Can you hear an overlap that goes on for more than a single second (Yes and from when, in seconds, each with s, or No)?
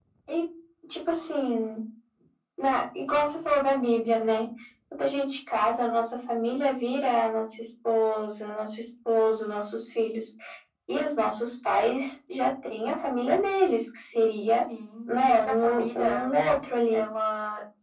Yes, from 15.1 s